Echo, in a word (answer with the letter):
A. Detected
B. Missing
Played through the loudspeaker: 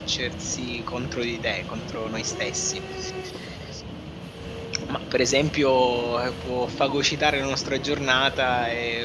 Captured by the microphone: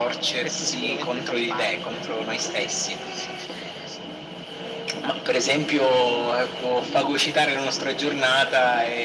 A